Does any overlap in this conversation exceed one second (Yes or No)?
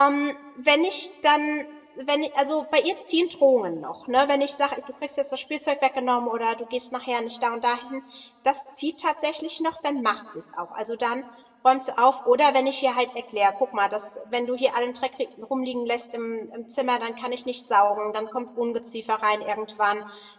No